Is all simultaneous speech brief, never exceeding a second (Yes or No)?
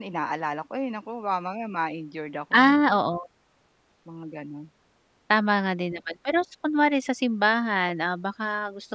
Yes